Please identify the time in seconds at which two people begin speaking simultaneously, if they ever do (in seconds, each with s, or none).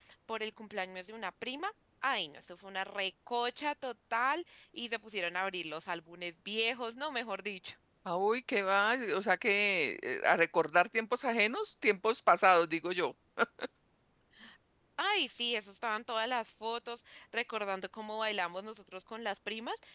none